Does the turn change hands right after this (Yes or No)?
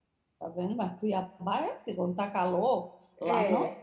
No